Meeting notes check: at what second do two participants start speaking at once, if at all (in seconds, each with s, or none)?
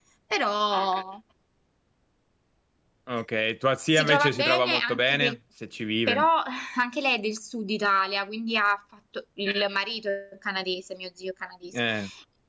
3.9 s